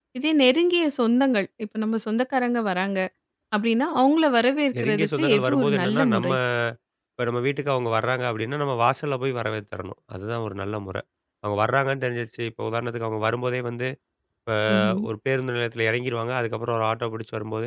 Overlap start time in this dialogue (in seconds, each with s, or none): 4.8 s